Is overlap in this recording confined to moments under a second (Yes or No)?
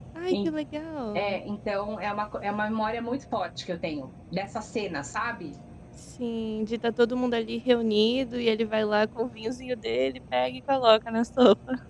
Yes